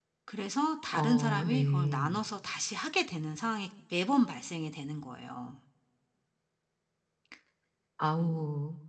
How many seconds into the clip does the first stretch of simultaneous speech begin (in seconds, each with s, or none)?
0.9 s